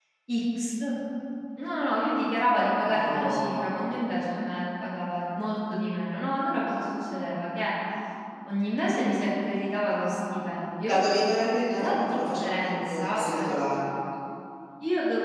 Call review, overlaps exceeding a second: present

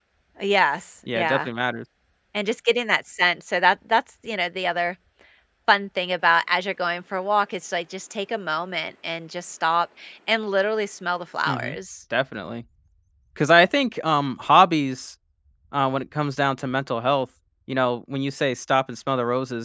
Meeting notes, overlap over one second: none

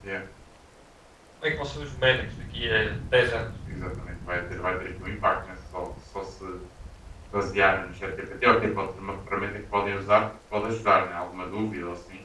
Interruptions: none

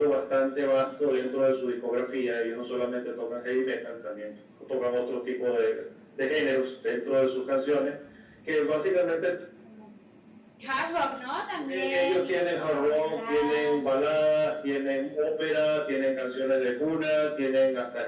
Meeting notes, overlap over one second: present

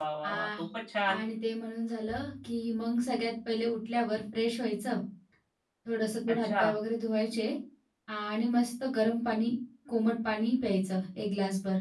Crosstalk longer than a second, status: none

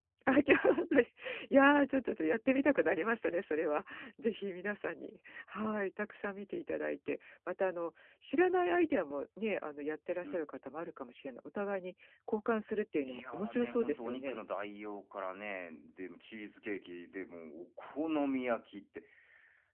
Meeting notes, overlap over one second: present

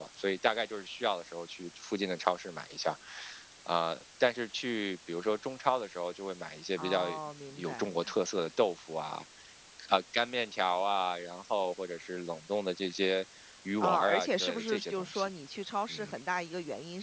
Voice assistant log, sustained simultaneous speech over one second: present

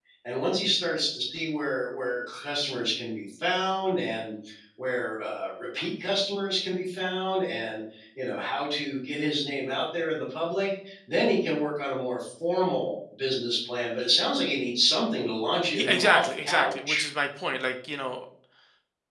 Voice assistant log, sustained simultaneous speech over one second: present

